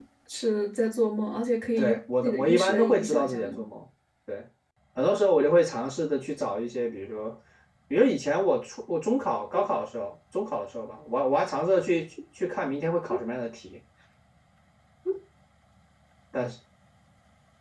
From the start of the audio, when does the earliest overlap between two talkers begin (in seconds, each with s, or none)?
1.8 s